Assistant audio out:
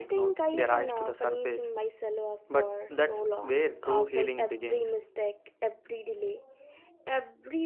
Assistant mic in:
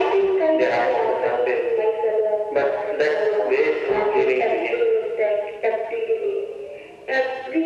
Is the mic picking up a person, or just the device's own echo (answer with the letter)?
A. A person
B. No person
B